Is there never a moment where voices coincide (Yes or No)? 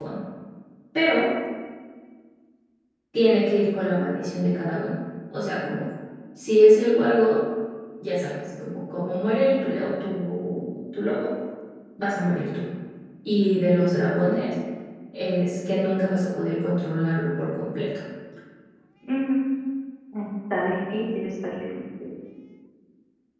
Yes